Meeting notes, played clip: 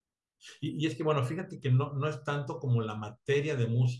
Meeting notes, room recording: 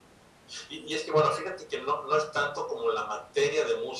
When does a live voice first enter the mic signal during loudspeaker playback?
none

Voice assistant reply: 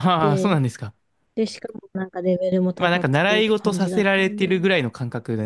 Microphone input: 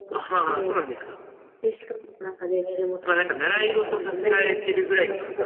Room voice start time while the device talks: 4 s

